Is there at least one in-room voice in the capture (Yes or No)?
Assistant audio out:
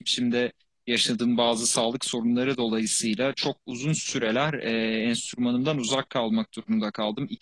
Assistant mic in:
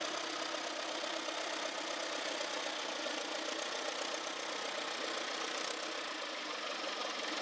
No